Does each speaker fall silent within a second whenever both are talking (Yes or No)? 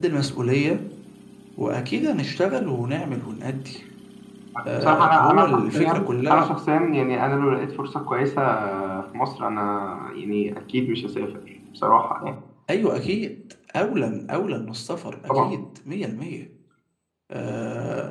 No